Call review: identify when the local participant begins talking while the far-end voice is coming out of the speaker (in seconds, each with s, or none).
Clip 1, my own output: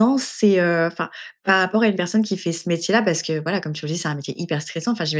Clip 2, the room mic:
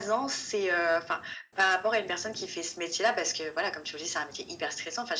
none